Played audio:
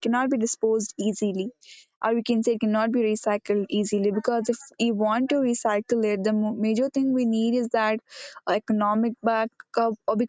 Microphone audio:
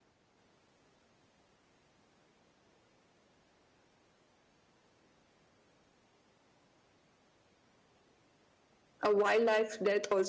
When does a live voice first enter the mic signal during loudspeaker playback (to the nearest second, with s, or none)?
9 s